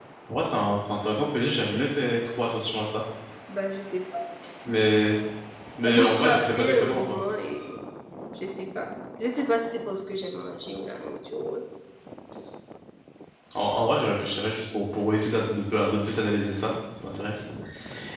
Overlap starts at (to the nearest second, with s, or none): 6 s